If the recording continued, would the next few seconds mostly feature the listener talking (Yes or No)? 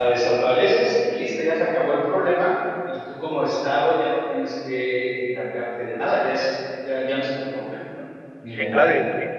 Yes